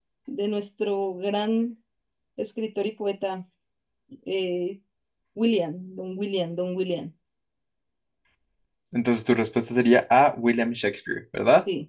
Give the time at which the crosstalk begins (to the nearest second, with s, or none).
none